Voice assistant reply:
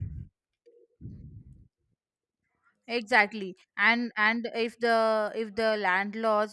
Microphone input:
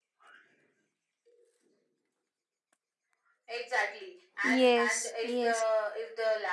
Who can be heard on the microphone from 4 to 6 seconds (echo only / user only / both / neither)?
both